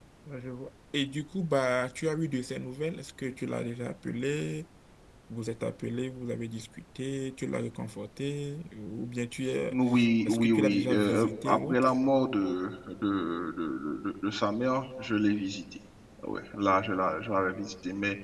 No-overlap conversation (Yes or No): No